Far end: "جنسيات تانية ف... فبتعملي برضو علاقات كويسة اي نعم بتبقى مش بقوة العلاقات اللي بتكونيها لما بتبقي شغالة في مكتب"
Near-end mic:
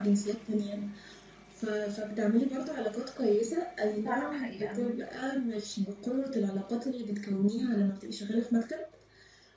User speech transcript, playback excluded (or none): دي فعلا حقيقة